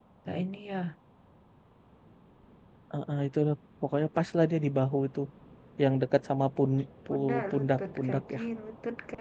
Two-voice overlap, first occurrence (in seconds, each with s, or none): 7.1 s